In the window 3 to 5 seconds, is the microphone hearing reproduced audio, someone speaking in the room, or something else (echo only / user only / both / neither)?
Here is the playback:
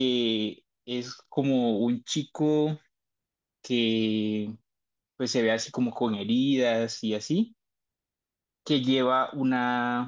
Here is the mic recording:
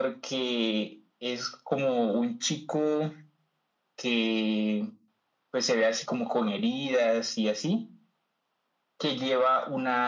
echo only